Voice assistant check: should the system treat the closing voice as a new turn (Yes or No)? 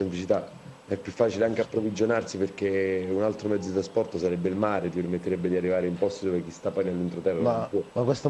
Yes